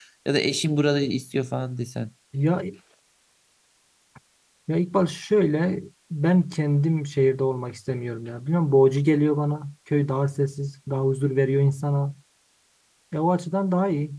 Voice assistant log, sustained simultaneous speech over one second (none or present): none